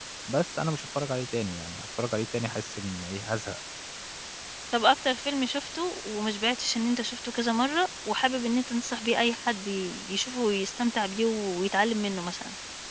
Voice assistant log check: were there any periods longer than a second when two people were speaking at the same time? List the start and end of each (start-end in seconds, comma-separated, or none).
none